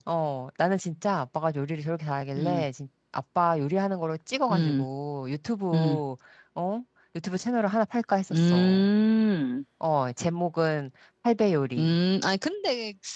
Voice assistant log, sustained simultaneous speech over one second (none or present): none